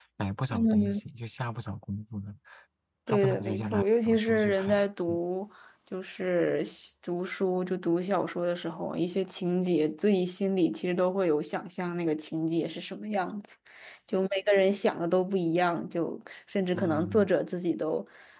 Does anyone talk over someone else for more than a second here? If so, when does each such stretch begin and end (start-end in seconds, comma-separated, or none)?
3.1-5.2